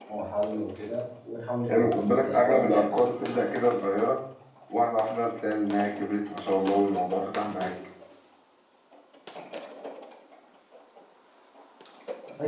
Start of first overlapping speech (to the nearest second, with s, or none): 2 s